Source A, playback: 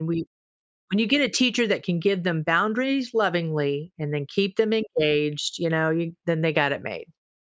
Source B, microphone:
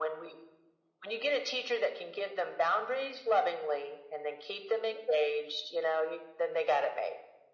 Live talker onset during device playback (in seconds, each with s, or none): none